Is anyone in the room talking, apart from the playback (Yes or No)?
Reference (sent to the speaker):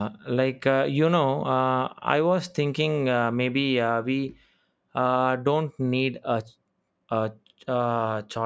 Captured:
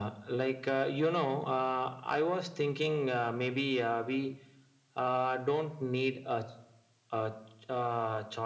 No